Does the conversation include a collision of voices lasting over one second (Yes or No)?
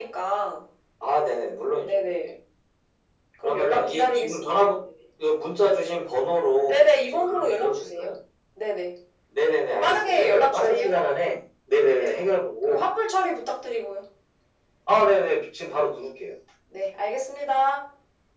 Yes